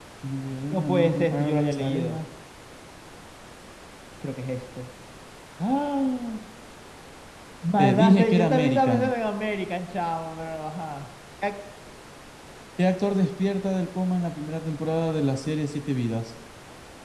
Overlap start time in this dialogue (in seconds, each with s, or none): 0.7 s